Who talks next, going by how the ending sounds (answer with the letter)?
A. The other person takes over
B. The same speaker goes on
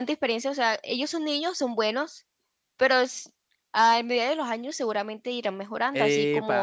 A